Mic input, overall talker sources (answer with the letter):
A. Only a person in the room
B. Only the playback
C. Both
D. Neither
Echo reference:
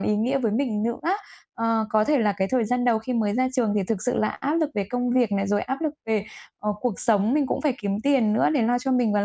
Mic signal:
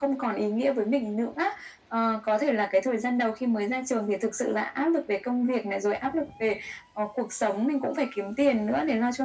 B